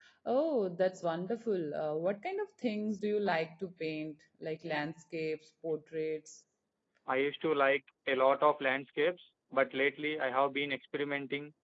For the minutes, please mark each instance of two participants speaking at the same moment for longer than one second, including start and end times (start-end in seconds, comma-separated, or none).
none